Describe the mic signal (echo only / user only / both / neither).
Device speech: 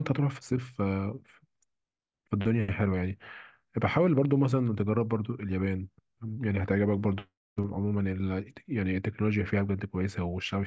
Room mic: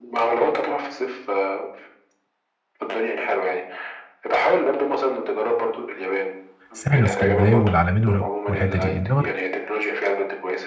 both